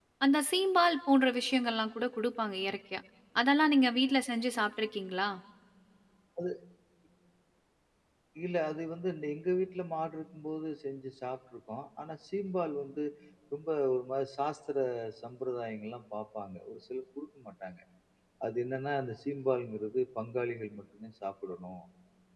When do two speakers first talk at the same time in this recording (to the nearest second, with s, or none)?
none